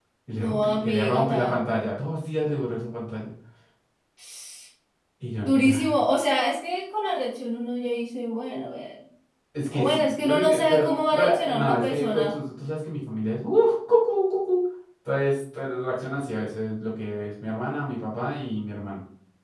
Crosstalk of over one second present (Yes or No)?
Yes